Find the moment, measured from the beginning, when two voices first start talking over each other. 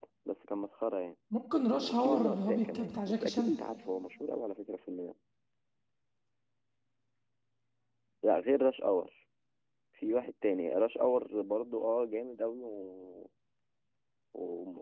1.8 s

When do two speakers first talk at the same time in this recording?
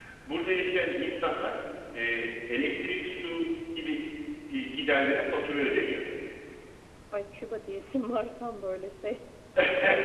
none

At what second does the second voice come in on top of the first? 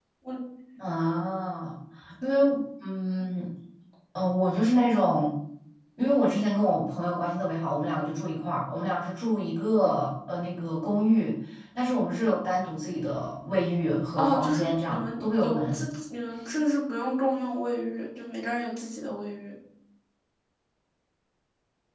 14.2 s

